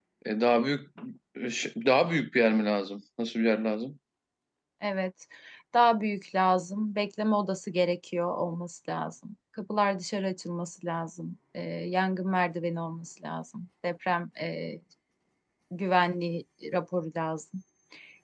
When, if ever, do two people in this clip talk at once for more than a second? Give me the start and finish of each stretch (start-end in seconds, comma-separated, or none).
none